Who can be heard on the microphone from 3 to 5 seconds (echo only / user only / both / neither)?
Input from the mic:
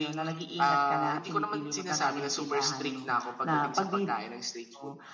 echo only